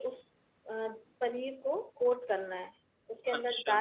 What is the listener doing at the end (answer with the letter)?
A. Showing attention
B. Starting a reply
A